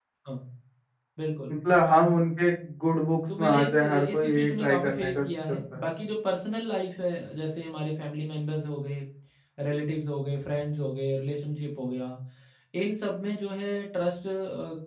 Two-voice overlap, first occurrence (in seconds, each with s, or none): 3.3 s